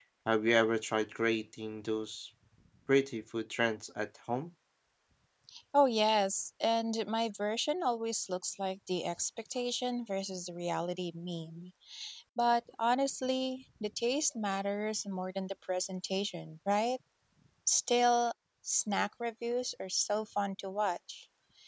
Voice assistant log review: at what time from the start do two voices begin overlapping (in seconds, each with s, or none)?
none